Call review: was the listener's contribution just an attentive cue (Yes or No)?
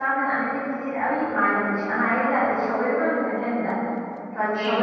Yes